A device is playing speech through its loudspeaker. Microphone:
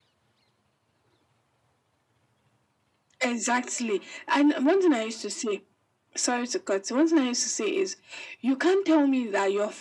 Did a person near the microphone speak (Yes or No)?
No